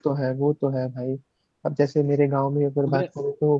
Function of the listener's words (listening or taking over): listening